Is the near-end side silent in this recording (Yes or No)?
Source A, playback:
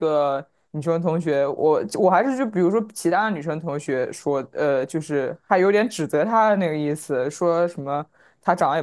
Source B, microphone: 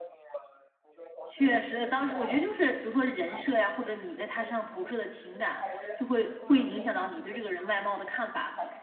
No